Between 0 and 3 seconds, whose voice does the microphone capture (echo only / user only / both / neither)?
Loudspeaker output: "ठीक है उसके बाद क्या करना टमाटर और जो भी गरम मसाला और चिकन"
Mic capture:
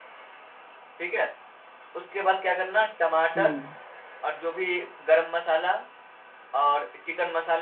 echo only